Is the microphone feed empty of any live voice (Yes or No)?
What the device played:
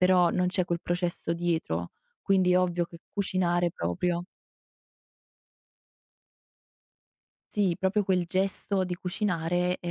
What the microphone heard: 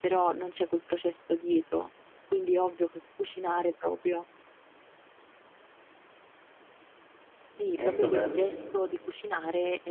No